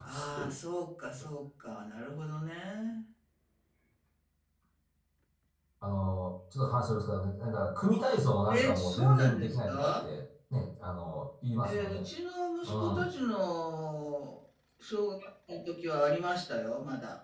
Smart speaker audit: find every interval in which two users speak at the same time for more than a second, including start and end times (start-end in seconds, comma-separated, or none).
8.5-10.0